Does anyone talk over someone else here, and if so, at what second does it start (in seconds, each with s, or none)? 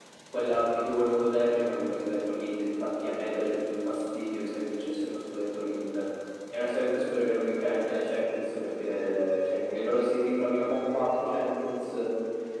none